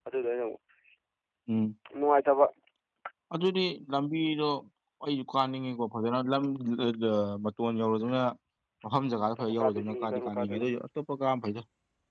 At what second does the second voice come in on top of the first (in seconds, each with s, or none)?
9.4 s